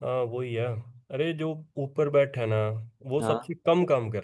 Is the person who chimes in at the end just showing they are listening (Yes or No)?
Yes